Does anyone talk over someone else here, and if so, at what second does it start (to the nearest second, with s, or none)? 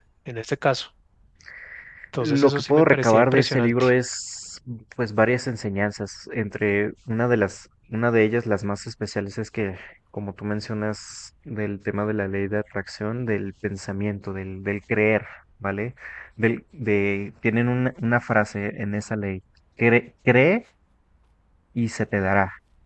2 s